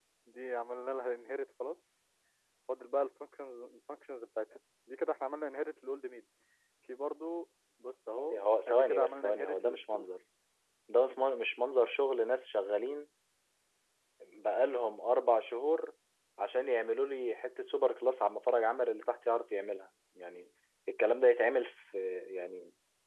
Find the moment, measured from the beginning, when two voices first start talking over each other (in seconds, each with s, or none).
8.1 s